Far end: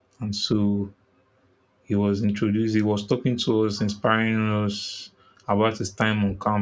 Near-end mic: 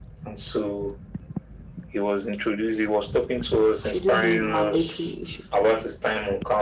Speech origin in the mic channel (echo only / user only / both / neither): both